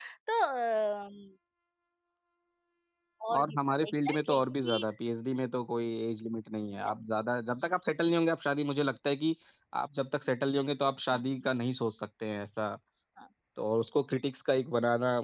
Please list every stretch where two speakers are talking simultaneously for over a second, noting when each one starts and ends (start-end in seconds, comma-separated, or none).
3.4-4.8